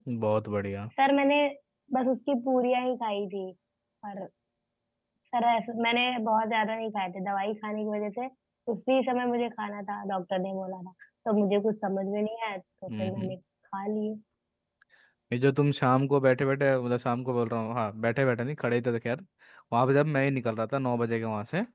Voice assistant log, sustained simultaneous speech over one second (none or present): none